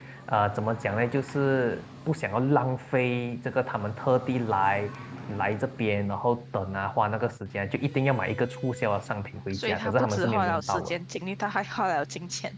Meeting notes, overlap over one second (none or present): present